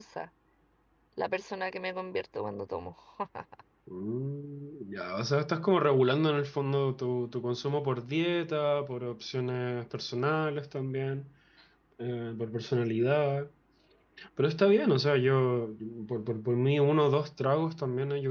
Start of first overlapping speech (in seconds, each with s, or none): none